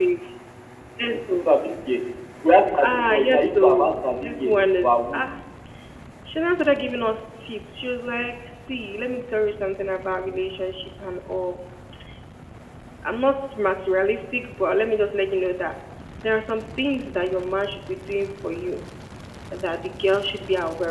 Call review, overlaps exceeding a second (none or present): present